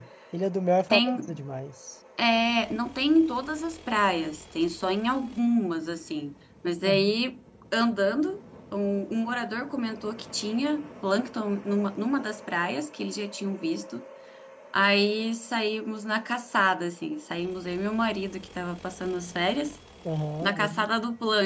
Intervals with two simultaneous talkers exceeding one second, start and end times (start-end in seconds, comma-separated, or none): none